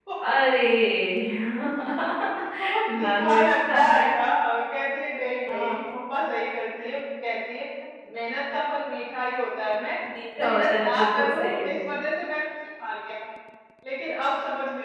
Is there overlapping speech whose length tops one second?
Yes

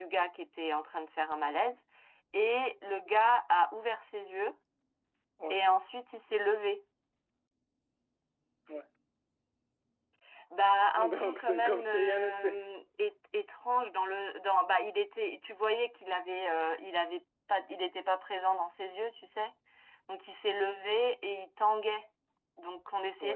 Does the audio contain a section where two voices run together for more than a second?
Yes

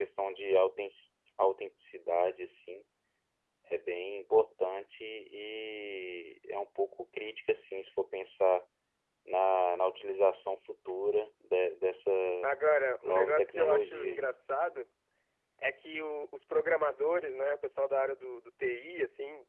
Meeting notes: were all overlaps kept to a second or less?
No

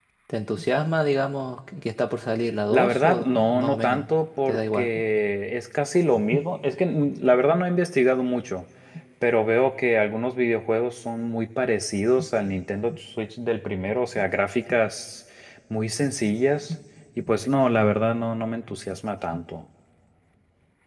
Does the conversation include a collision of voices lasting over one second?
Yes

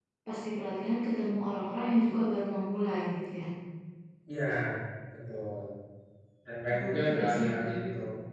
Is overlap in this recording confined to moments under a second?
No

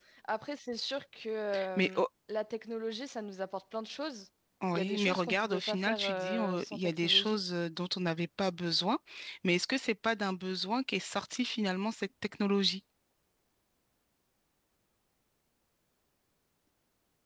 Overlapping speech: Yes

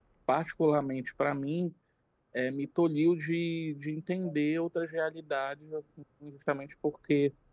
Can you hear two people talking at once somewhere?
No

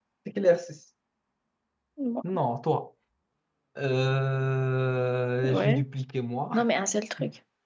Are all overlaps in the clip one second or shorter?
Yes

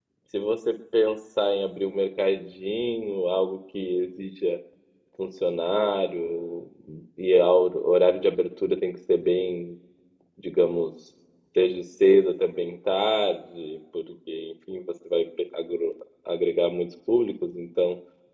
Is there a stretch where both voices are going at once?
No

